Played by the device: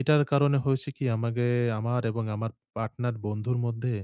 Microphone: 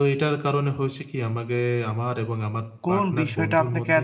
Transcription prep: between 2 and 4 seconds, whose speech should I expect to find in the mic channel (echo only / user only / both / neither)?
both